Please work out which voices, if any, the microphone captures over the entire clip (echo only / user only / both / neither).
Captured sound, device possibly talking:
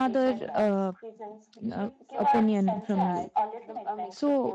both